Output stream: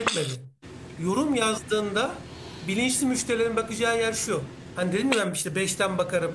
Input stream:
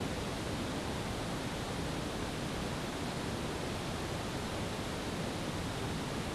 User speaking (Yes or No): No